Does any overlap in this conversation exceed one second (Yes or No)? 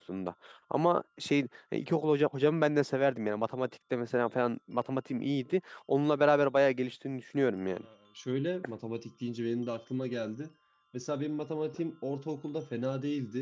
No